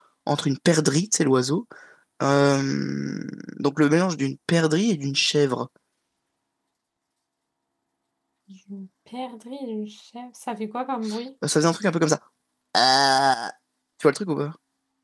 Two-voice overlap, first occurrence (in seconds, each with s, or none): none